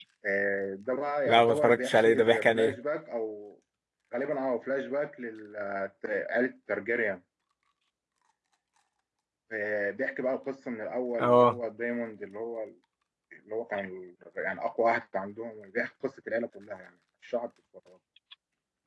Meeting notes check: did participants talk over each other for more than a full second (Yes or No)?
Yes